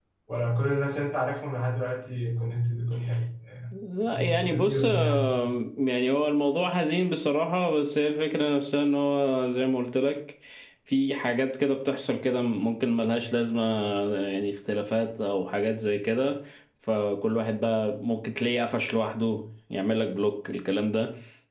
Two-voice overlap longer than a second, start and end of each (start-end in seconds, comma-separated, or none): 4.1-5.4